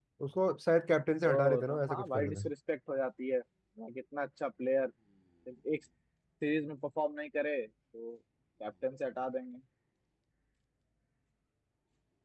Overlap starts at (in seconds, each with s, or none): 1.2 s